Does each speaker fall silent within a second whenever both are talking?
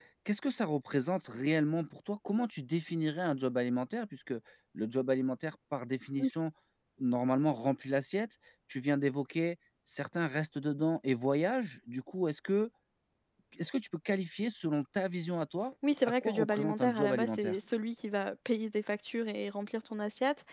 No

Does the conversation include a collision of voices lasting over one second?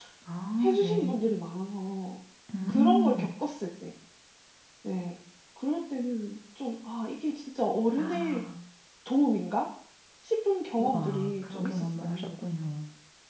Yes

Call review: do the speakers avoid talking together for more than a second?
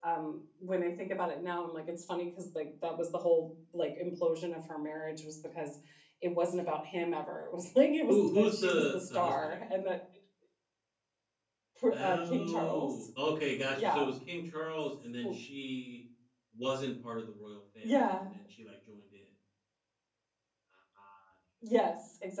No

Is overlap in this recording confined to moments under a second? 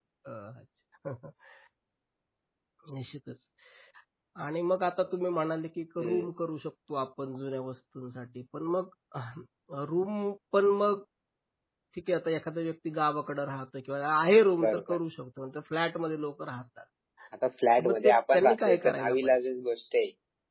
No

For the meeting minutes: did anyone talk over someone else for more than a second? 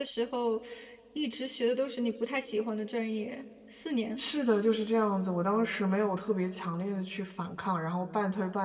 No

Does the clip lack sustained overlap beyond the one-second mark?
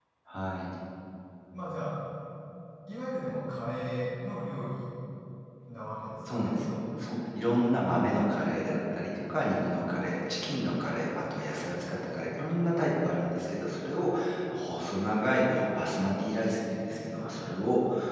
Yes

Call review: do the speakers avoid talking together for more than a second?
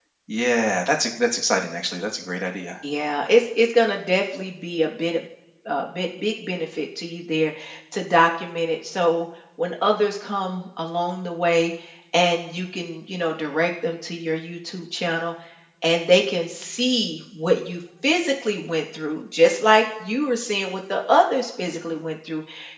Yes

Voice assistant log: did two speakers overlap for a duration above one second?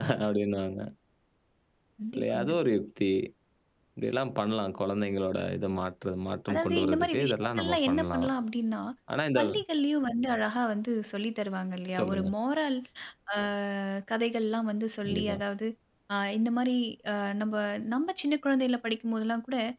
Yes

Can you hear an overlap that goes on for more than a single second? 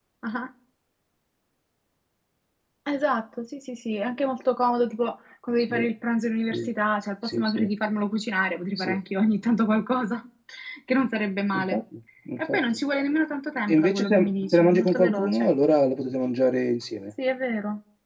Yes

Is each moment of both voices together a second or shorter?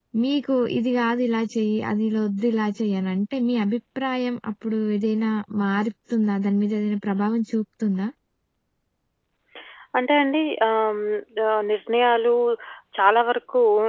Yes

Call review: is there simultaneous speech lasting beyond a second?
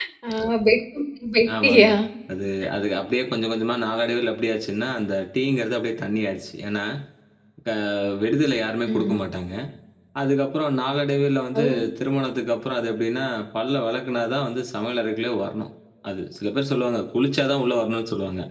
No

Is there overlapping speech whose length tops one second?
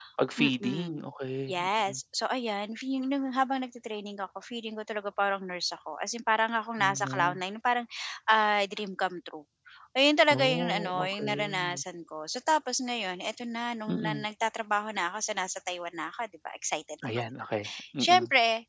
Yes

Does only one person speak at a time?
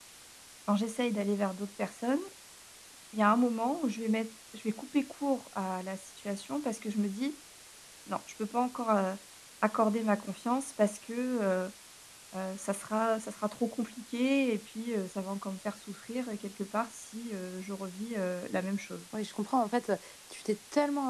Yes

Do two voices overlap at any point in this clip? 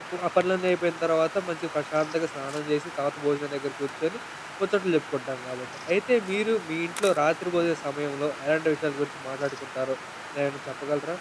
No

